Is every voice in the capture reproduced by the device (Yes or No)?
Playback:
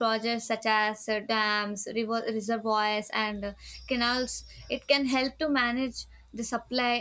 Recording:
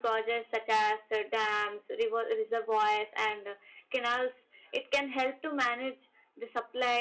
Yes